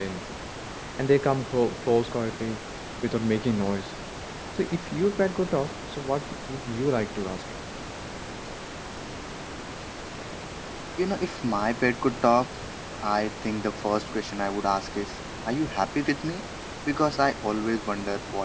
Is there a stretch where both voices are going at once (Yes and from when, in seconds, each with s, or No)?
No